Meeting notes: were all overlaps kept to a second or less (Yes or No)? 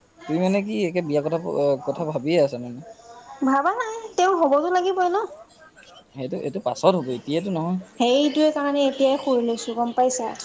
Yes